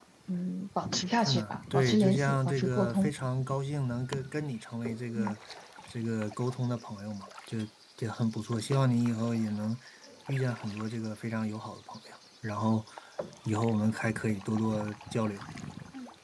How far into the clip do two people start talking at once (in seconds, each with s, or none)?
1.2 s